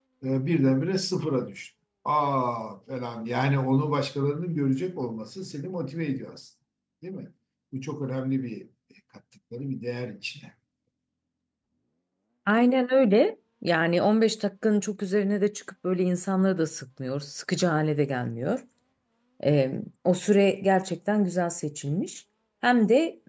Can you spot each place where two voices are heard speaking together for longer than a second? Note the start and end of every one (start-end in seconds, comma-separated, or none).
none